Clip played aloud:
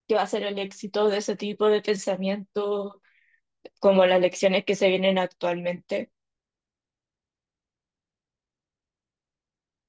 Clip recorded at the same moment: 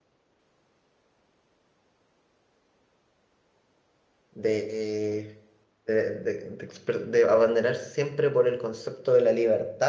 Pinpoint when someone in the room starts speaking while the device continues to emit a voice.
4.3 s

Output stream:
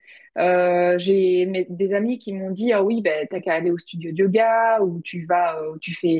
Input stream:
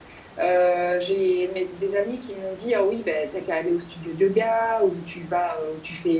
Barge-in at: none

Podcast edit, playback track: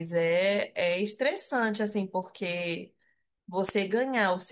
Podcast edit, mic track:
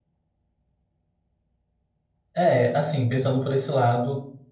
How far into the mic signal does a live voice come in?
2.3 s

